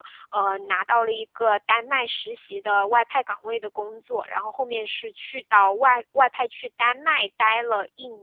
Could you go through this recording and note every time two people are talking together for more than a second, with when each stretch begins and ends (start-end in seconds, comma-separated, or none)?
none